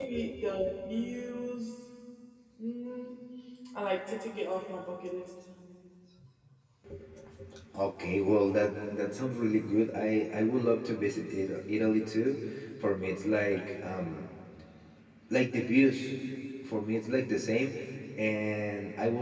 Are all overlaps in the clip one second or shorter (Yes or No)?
Yes